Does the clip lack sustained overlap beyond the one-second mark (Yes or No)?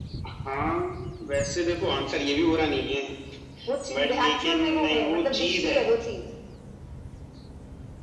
No